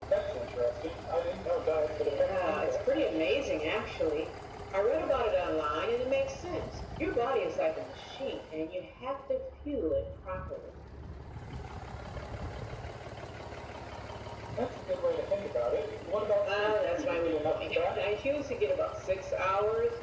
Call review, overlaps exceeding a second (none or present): present